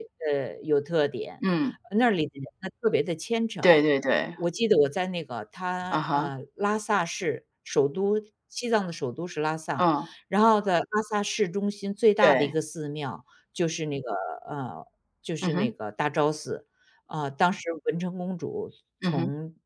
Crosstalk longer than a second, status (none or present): none